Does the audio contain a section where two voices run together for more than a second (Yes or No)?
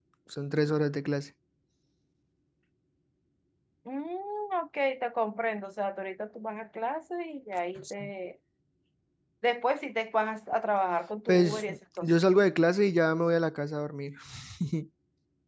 No